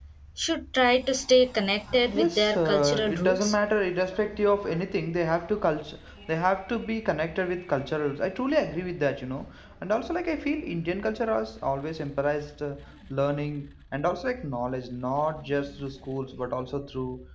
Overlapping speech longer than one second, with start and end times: 2.2-3.6

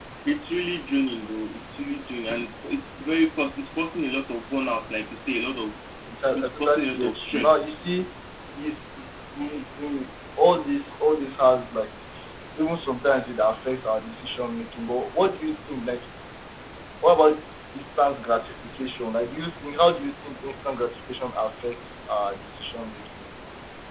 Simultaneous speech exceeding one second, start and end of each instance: 6.3-7.6

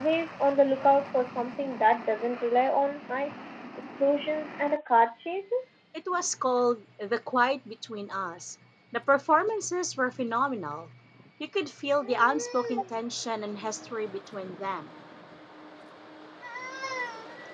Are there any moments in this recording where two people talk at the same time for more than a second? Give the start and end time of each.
none

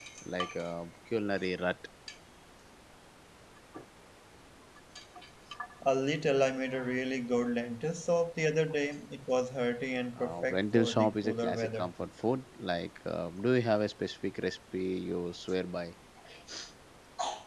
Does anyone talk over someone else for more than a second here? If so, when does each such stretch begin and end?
10.2-11.9

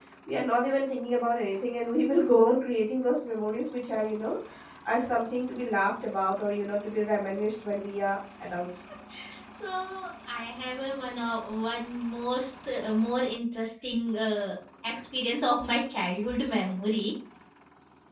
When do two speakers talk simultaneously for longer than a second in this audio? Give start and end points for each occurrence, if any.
none

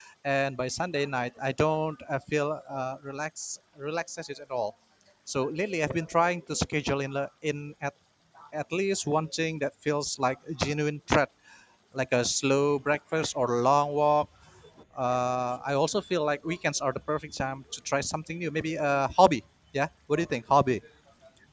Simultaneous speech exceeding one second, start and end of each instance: none

